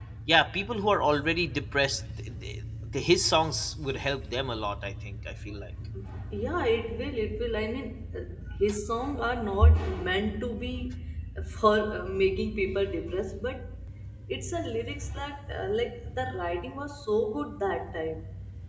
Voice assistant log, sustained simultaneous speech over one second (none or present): none